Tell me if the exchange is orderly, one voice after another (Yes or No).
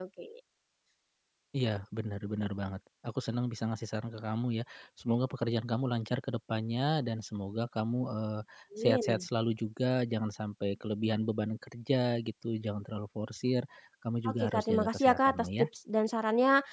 No